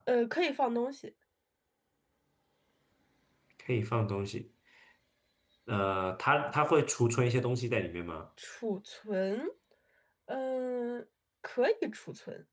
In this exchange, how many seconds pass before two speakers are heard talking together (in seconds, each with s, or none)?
none